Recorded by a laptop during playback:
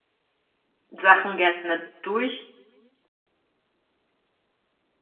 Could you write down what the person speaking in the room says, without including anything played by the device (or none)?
Sachen gerne durchziehen